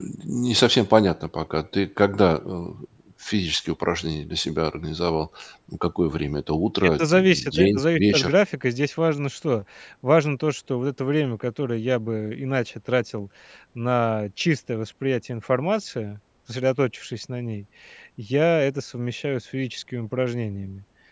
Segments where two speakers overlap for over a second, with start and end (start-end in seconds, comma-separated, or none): 7.0-8.3